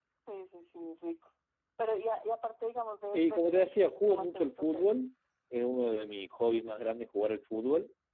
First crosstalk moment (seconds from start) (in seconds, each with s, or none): 3.1 s